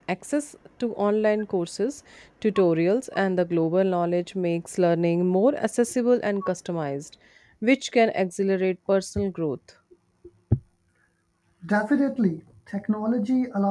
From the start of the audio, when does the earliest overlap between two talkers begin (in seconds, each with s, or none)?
none